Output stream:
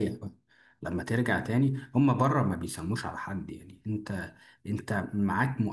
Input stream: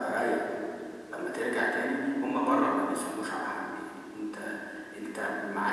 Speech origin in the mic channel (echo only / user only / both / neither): echo only